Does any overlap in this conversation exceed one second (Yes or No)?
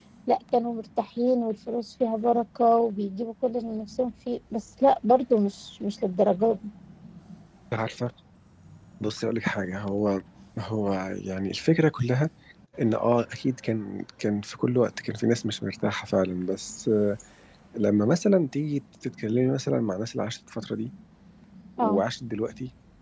No